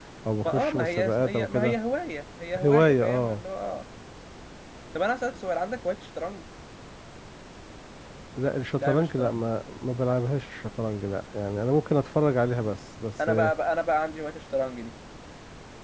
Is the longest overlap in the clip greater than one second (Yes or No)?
Yes